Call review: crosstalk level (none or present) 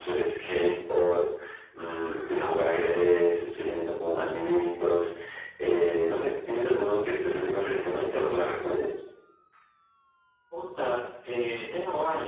none